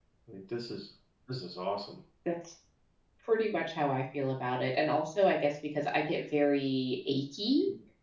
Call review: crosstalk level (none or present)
none